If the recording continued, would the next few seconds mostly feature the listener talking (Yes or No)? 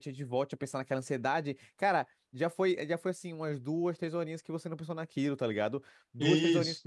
No